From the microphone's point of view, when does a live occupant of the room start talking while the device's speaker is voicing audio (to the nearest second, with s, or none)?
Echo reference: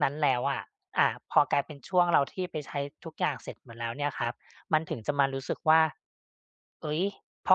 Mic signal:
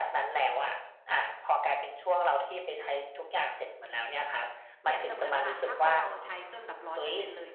5 s